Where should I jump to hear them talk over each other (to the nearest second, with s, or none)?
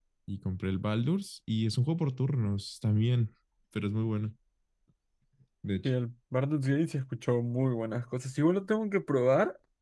none